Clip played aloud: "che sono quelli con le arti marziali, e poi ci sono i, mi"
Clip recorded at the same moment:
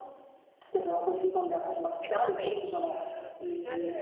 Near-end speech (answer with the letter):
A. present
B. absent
A